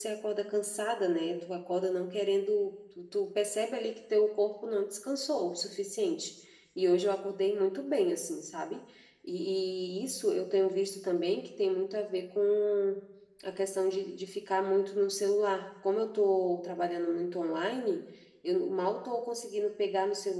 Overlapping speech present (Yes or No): No